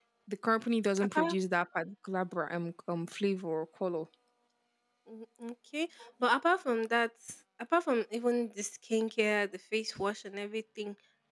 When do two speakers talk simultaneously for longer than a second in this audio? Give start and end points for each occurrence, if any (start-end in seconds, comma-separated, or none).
none